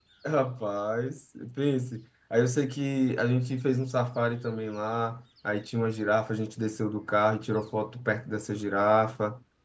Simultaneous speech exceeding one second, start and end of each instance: none

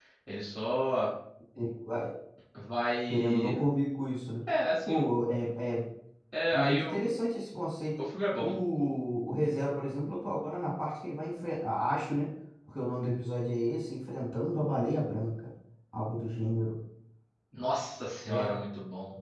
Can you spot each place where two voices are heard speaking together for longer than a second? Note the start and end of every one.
none

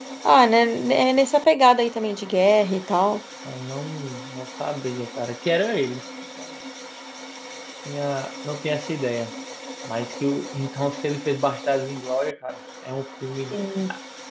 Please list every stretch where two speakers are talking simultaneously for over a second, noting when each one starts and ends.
none

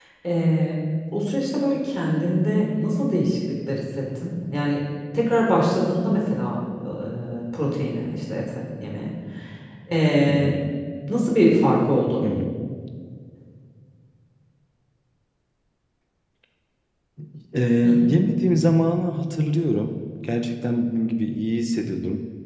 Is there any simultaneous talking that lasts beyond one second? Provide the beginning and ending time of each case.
none

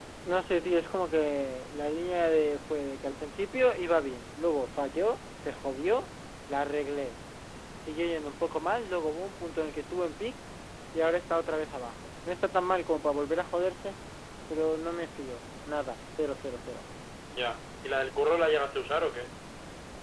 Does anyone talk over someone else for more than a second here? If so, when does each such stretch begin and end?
none

